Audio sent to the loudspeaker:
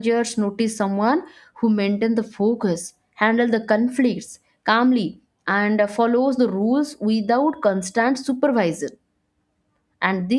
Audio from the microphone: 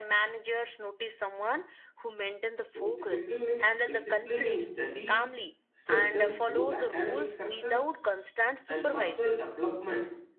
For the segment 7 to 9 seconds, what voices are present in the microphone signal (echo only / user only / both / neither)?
both